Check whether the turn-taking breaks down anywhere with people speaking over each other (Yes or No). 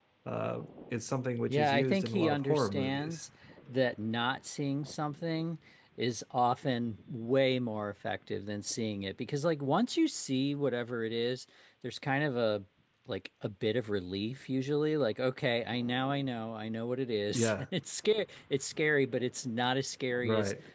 Yes